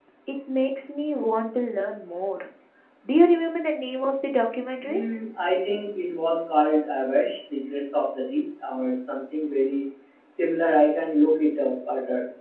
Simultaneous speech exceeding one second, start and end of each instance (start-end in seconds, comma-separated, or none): none